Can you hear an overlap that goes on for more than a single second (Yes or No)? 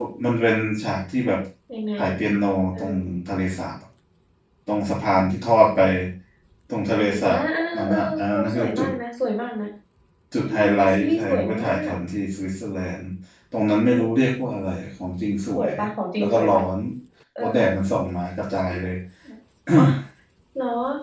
Yes